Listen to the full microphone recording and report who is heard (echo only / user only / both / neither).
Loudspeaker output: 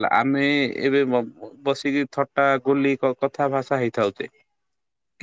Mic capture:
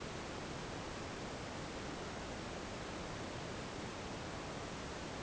neither